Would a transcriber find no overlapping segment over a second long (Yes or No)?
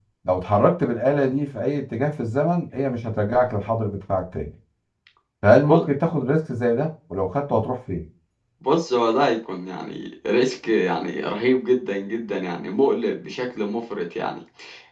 Yes